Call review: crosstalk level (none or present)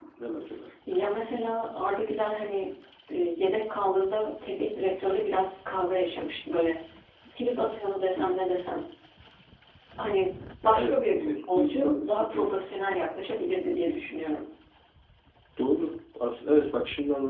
present